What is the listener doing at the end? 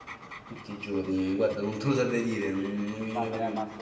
taking over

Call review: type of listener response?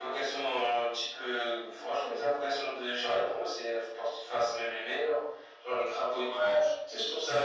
listening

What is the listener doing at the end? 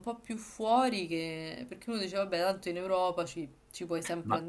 taking over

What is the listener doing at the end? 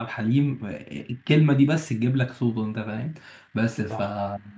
listening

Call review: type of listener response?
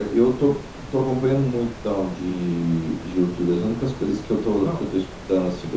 listening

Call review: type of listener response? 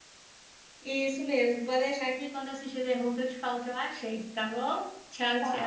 taking over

